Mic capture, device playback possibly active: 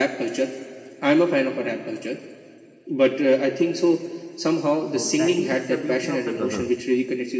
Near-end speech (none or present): present